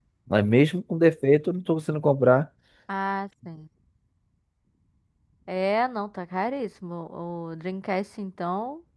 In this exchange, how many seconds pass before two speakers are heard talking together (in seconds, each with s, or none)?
none